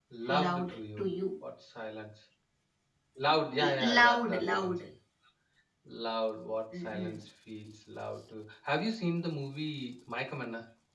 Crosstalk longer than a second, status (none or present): present